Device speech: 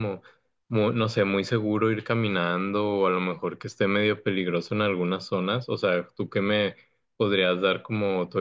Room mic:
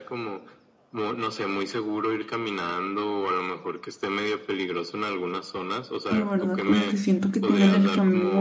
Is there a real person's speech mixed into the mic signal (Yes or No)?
Yes